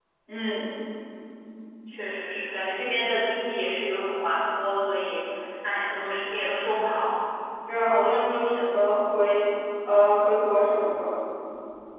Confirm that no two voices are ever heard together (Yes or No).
Yes